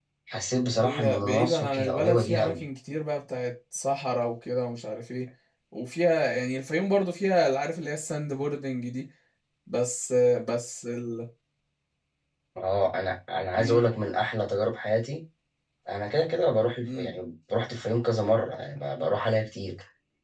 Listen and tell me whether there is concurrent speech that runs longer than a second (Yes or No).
Yes